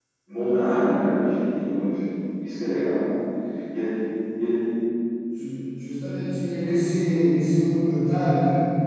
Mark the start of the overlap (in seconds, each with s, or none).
none